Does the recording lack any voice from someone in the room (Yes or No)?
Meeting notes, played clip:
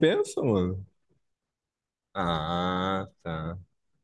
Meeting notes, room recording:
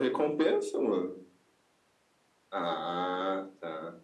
Yes